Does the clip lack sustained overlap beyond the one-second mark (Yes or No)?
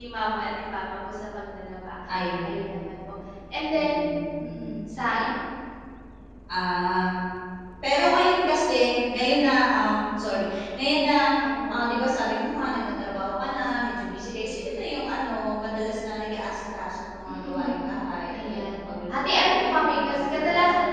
No